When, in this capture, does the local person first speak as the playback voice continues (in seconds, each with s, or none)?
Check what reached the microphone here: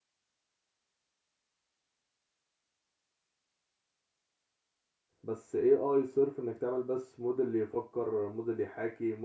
5.2 s